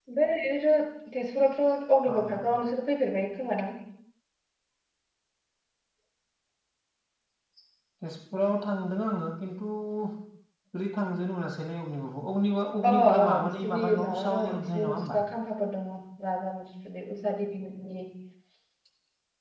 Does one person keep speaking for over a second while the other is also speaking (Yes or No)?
Yes